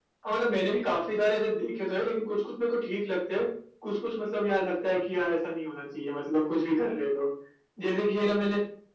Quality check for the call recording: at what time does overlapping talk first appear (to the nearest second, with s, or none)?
none